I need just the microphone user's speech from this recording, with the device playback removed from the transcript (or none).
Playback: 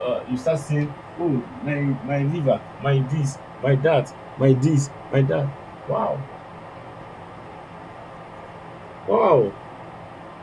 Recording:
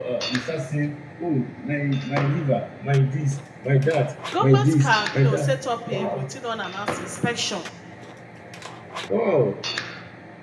Government can, you know, set up a routine unannounced inspection,